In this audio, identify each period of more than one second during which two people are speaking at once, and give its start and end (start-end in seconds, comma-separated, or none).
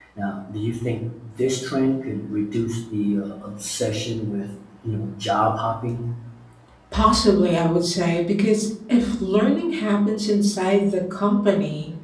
none